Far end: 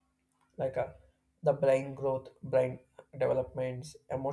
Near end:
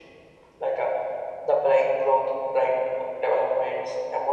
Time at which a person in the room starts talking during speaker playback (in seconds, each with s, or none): none